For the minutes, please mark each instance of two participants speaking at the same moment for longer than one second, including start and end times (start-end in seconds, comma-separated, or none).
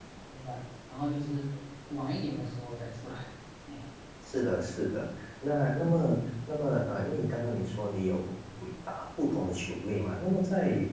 none